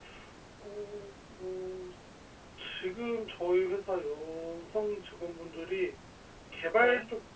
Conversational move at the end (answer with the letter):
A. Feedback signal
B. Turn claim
A